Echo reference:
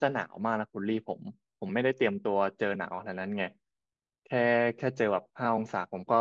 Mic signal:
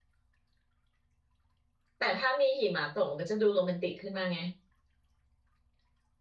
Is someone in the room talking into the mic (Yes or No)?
Yes